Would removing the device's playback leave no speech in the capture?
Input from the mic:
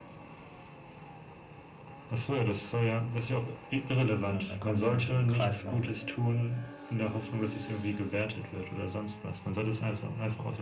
No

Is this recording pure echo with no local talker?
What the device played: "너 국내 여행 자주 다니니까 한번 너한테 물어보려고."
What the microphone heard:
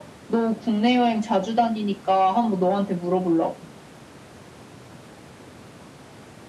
Yes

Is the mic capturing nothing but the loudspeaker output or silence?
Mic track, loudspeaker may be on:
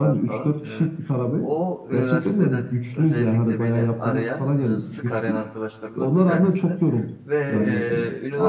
No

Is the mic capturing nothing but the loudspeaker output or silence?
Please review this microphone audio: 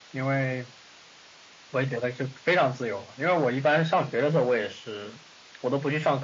Yes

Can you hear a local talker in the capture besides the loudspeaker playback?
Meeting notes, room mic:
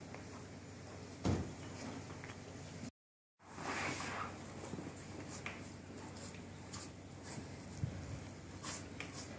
No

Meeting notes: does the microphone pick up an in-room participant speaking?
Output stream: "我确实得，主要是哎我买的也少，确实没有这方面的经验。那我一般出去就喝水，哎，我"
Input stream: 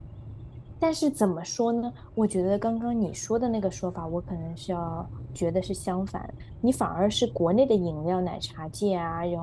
Yes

